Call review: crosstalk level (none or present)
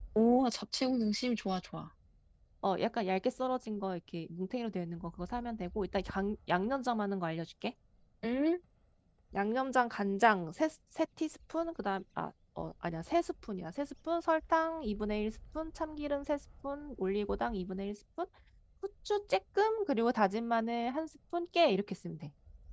none